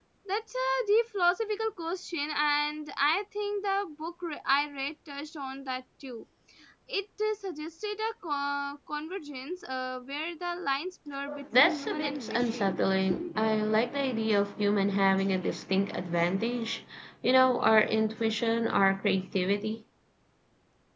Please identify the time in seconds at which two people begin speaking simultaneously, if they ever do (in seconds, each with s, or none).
11.6 s